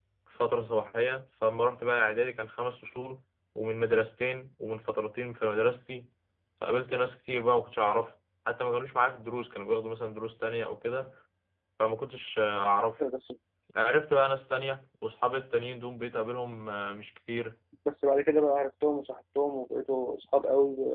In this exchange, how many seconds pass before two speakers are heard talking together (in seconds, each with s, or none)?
none